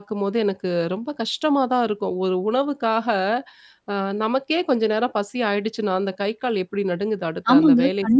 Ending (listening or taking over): listening